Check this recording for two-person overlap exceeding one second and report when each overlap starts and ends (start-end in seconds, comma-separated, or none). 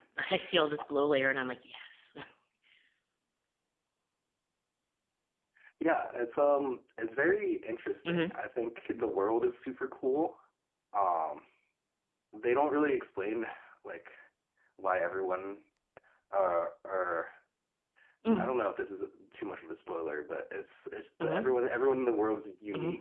none